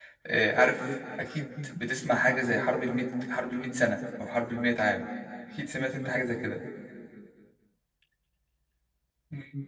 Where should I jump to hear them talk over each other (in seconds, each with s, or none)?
none